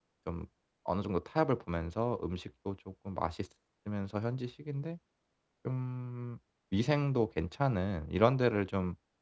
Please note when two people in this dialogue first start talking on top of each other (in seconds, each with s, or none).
none